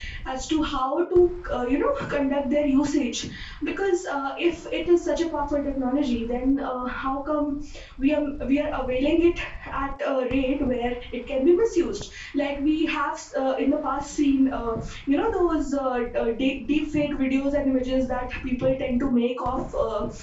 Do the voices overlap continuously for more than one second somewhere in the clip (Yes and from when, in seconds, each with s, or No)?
No